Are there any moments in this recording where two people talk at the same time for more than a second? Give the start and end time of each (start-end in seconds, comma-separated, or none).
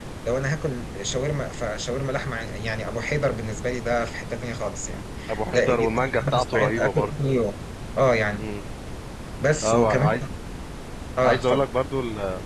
5.5-7.1